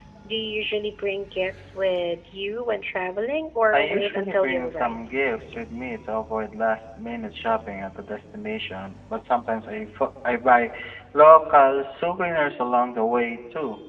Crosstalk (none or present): present